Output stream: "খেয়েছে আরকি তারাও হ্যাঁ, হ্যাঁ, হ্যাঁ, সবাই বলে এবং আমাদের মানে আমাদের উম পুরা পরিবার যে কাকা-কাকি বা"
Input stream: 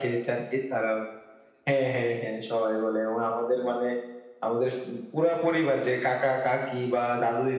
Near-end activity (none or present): none